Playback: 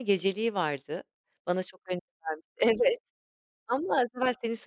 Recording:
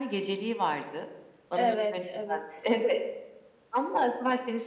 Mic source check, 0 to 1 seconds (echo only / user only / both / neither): echo only